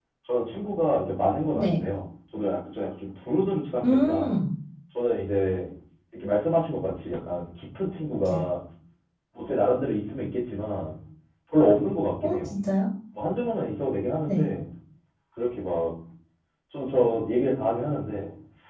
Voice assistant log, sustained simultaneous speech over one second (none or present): none